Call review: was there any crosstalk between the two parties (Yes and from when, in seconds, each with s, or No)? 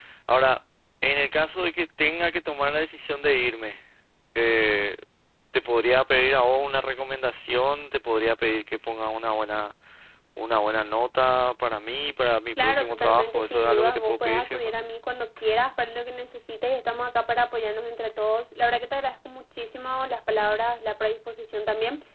Yes, from 12.6 s